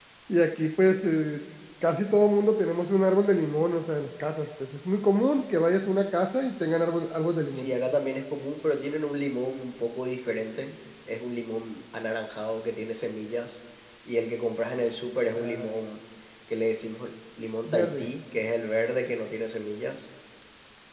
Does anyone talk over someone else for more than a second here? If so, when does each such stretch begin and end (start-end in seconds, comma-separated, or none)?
none